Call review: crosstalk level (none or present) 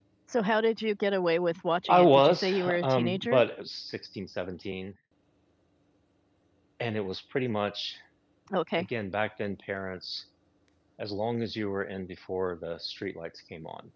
present